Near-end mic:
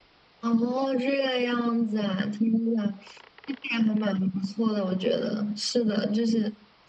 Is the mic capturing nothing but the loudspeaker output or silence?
Yes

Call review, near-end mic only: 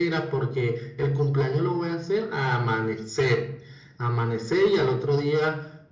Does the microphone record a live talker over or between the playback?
No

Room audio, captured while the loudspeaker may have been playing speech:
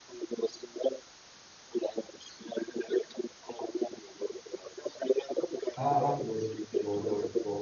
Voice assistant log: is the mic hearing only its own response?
No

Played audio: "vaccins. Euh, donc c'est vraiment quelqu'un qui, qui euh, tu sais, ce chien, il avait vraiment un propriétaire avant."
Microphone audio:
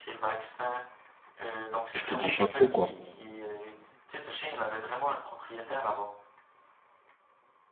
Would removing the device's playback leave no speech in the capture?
No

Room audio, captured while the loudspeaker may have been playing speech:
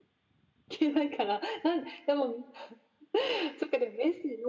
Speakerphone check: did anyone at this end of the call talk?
No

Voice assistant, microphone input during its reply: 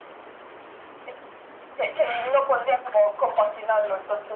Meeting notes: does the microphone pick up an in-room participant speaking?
No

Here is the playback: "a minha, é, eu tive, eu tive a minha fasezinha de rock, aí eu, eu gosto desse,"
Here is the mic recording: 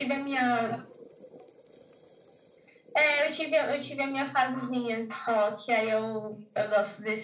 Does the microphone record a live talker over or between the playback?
No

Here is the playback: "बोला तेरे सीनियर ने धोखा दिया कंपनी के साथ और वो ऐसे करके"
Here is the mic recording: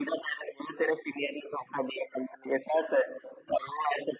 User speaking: No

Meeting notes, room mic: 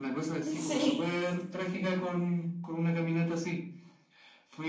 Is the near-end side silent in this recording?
No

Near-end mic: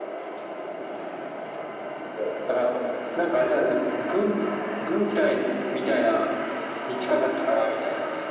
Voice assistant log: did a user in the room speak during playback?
No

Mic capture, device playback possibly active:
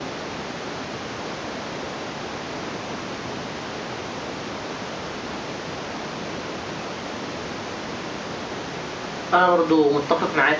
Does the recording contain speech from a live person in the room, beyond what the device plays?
Yes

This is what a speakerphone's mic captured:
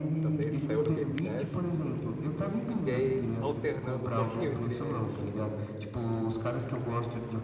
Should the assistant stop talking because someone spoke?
Yes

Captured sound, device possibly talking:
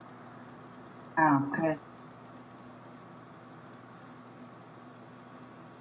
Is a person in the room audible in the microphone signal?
Yes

